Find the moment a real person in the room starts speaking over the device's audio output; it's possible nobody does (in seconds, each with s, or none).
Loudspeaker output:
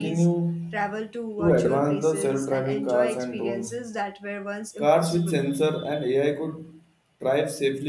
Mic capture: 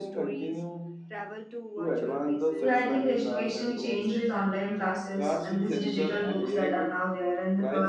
2.6 s